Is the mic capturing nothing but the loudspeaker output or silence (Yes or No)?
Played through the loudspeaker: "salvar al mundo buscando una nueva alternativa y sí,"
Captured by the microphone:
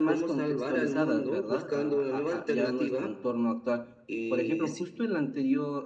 No